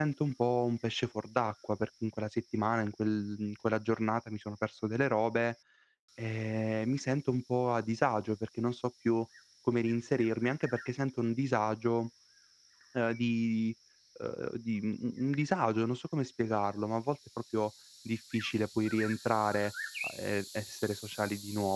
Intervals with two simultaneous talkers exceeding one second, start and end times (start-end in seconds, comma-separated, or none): none